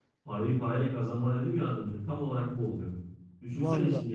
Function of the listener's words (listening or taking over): listening